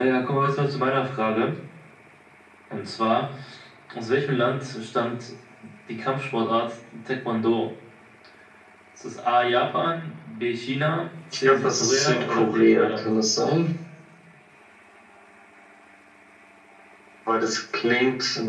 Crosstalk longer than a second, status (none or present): present